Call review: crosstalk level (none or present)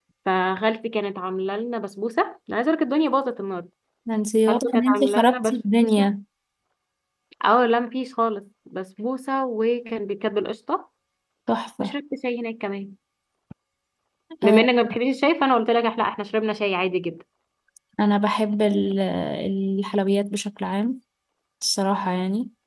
present